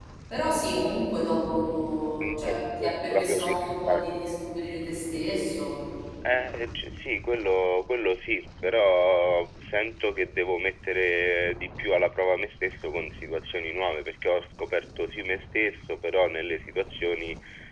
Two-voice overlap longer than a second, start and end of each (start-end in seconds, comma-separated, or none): 2.2-4.2